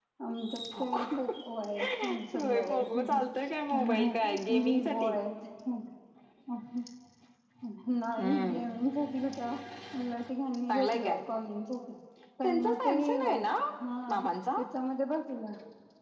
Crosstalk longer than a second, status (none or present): present